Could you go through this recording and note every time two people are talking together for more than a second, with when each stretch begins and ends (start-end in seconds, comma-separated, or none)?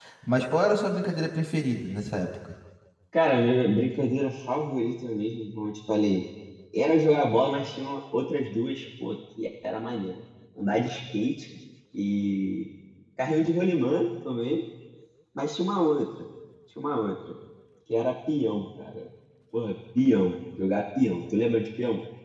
none